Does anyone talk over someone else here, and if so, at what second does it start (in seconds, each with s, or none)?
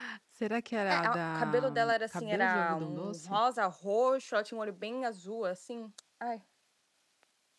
0.9 s